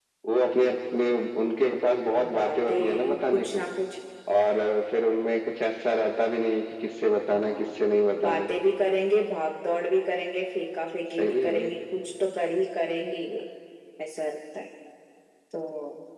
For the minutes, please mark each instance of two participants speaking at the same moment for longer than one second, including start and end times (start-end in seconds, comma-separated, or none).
2.3-3.6